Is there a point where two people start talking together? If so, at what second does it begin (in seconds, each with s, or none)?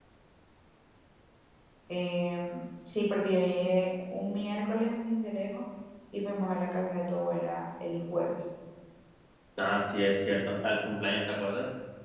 none